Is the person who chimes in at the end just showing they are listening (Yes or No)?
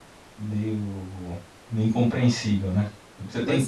Yes